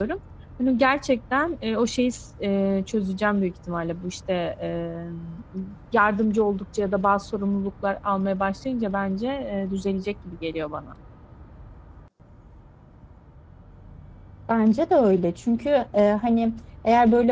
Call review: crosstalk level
none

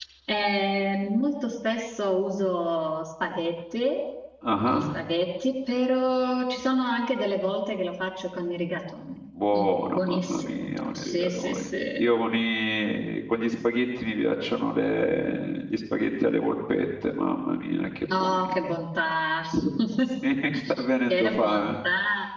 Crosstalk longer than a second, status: present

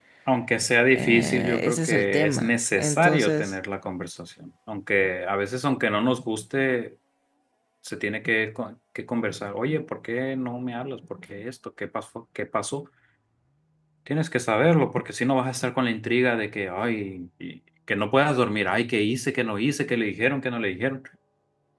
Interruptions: present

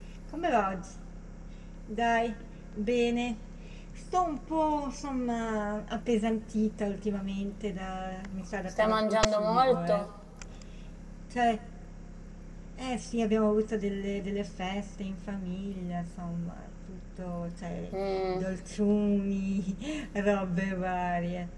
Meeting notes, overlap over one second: present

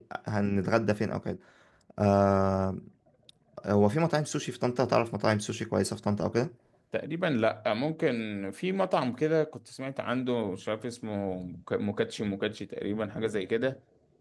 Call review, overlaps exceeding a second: none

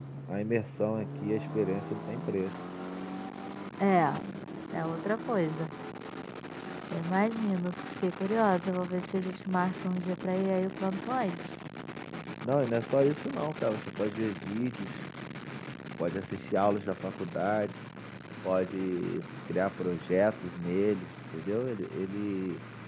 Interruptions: none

